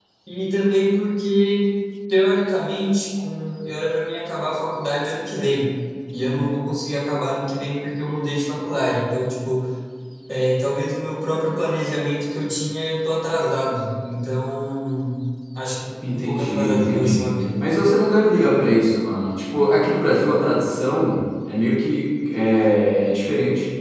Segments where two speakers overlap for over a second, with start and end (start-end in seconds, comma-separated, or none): 16.1-17.3